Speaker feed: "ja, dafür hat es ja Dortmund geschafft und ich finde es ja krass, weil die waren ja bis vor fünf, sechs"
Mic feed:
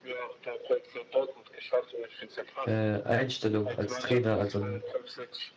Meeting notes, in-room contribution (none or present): present